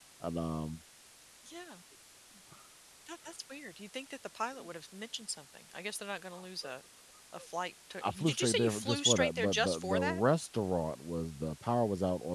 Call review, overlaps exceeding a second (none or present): present